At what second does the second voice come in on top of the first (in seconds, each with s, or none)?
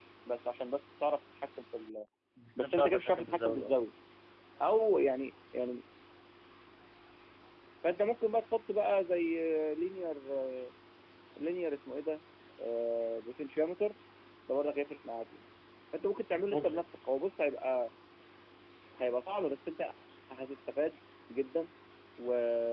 2.6 s